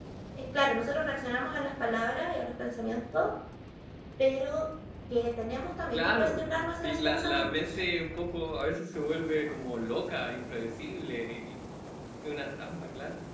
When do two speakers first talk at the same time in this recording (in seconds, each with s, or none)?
5.9 s